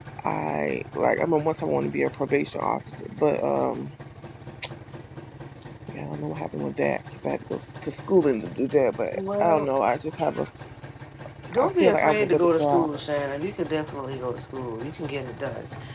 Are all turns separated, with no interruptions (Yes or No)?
No